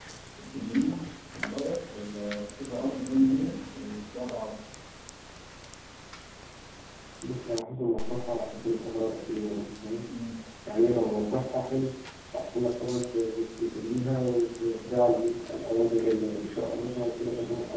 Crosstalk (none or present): none